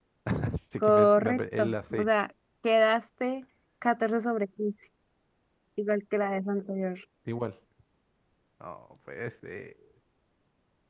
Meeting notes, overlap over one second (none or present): present